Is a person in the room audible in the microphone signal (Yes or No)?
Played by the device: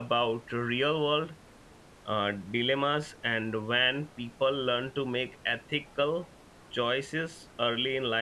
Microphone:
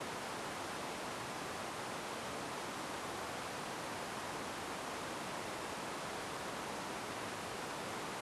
No